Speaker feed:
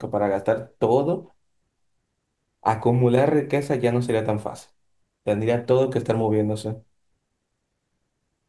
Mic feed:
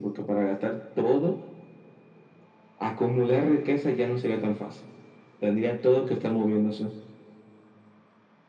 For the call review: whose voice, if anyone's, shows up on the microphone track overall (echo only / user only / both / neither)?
echo only